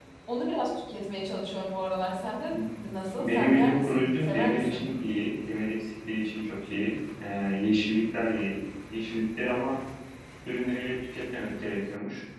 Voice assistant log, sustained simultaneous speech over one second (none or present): present